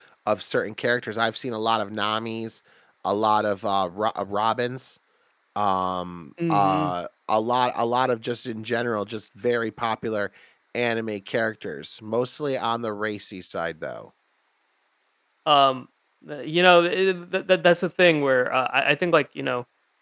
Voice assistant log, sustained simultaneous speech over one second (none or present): none